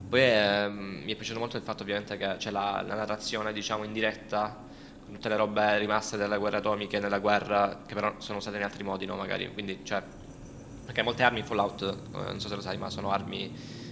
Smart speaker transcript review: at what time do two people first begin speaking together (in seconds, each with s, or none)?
none